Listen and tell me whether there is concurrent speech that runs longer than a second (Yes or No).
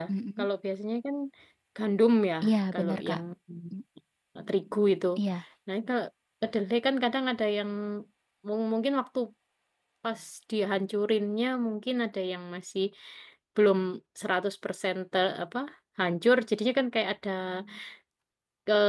No